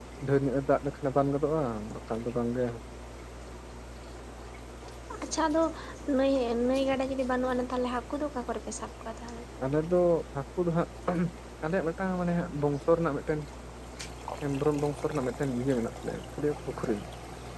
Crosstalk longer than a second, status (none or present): none